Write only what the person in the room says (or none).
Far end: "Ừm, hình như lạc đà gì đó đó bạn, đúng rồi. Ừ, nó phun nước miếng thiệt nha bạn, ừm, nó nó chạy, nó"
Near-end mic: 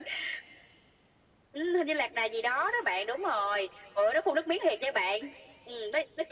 none